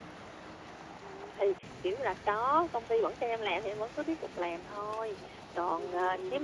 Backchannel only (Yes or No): Yes